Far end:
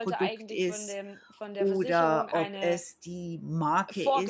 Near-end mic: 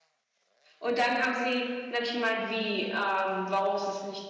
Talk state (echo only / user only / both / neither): user only